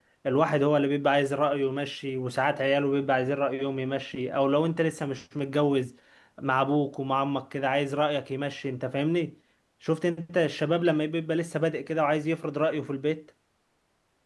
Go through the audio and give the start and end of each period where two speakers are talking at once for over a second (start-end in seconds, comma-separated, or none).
none